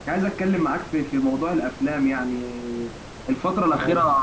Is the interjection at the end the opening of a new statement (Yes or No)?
No